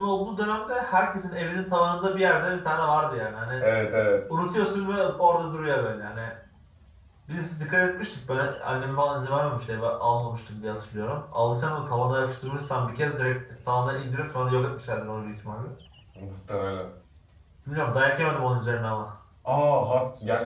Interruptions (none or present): none